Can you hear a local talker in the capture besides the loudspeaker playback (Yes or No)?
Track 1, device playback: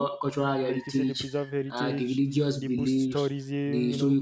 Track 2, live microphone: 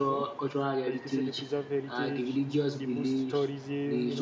No